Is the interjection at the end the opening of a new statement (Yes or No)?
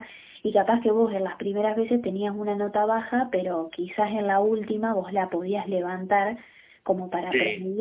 No